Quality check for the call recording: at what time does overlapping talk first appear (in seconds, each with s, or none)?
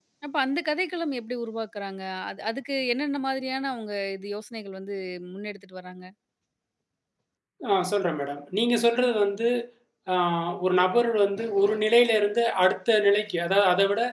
none